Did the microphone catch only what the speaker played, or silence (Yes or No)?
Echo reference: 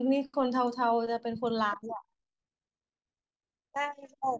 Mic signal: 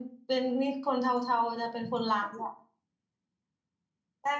Yes